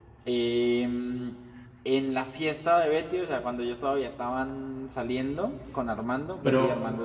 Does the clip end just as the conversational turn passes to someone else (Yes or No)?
No